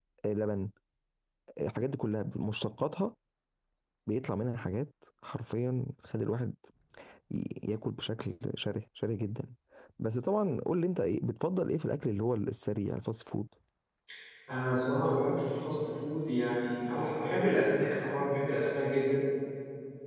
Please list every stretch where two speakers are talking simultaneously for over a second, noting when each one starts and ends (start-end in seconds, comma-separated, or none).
none